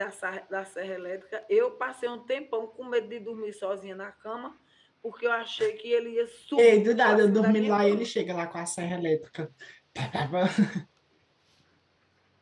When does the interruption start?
7 s

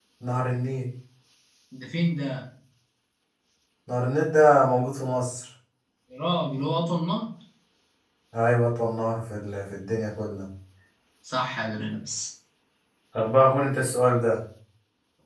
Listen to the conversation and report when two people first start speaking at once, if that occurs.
none

